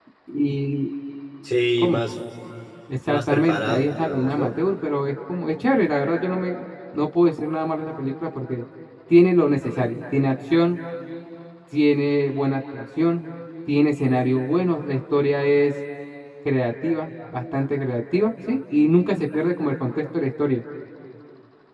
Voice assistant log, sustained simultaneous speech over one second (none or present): present